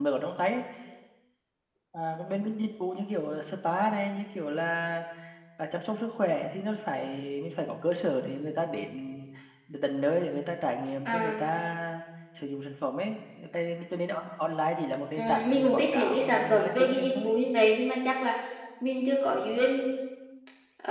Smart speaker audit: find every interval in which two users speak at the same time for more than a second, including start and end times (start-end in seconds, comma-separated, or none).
15.2-17.3